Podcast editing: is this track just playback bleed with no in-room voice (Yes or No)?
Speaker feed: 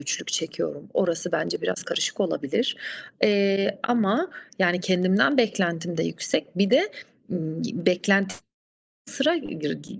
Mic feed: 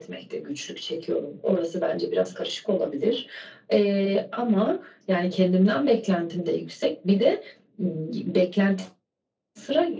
Yes